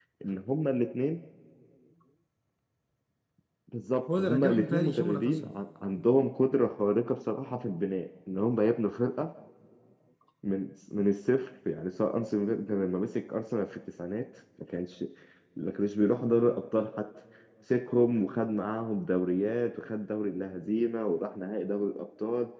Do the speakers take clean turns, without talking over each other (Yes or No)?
No